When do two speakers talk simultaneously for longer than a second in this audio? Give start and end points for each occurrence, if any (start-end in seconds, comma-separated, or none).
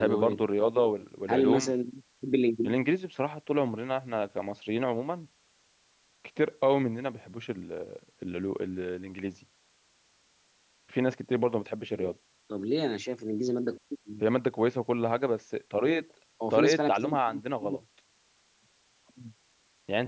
16.5-17.8